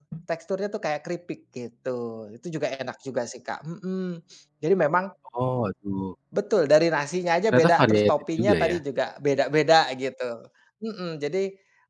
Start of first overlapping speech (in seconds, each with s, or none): 7.5 s